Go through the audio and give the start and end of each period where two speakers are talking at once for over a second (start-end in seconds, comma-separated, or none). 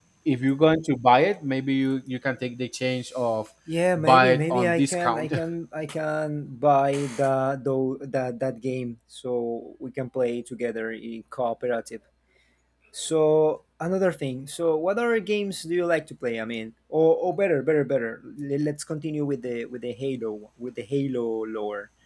4.0-5.3